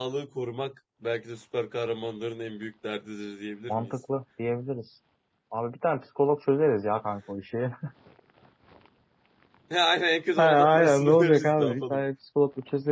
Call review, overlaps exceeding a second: present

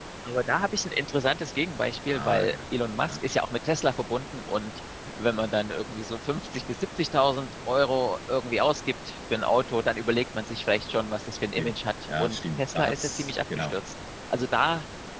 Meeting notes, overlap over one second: present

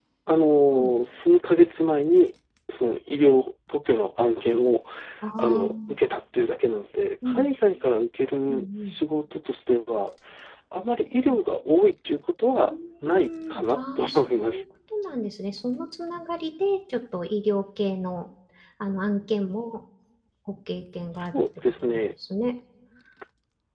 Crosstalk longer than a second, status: present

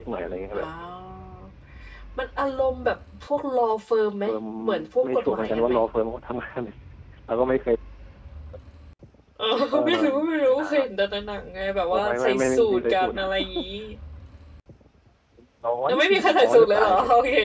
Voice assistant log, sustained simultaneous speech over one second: present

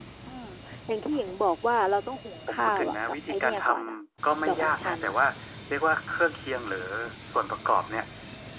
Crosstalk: present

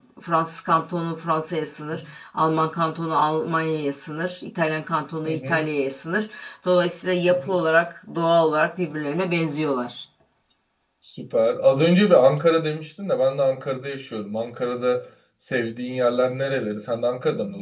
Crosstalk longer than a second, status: none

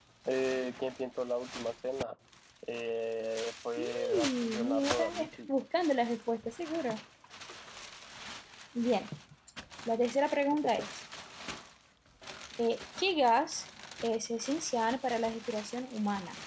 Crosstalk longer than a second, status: present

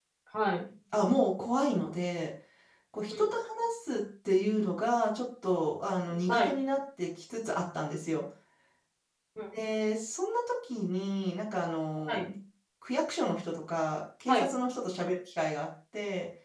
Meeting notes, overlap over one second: none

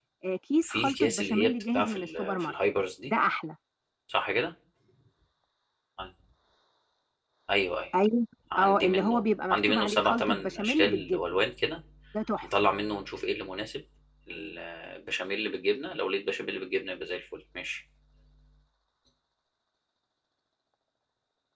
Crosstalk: present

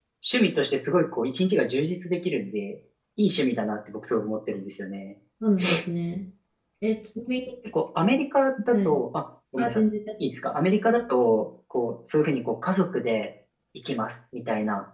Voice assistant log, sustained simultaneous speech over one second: none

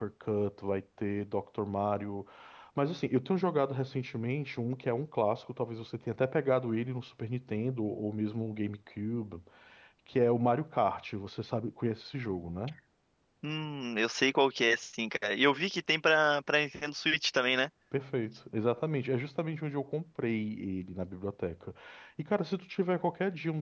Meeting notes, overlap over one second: none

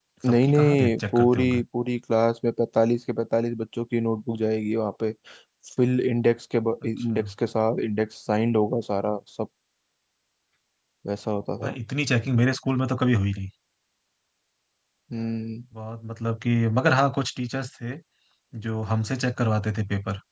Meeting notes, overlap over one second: present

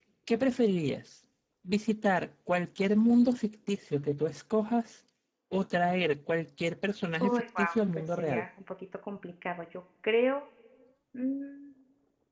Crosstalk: present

